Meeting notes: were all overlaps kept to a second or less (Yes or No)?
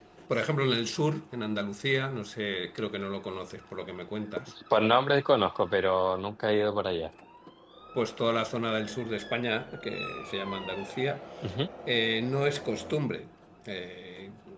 Yes